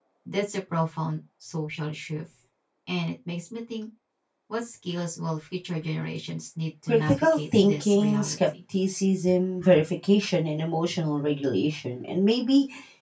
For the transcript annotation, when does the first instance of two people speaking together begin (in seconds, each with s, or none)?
6.9 s